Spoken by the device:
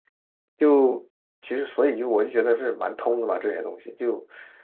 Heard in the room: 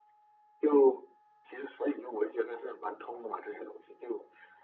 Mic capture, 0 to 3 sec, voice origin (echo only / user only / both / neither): echo only